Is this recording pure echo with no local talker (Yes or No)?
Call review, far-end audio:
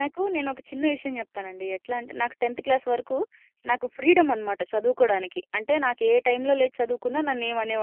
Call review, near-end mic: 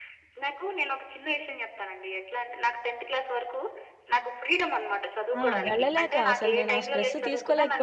No